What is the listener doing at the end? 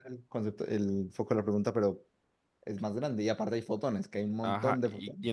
taking over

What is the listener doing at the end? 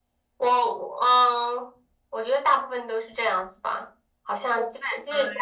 listening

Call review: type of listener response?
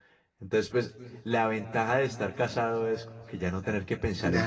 taking over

